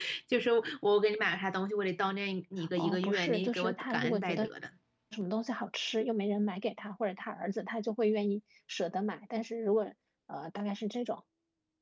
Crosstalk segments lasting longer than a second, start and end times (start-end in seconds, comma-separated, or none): 2.8-4.5